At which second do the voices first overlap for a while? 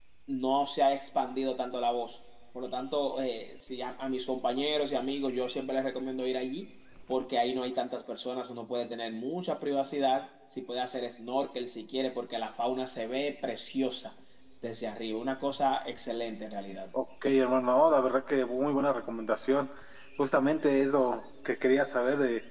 none

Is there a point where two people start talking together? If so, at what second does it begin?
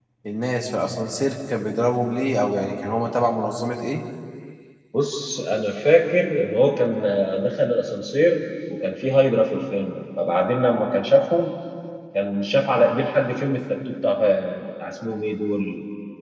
none

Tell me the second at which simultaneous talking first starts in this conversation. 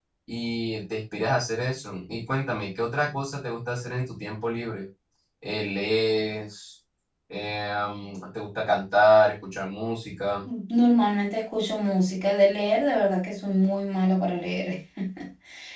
none

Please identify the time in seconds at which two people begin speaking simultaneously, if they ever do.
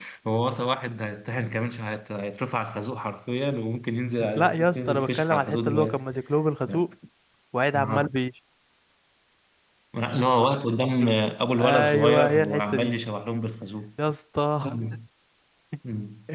4.4 s

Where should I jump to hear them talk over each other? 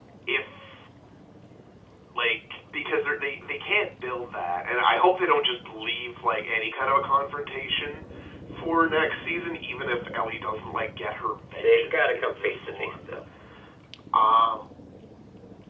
11.6 s

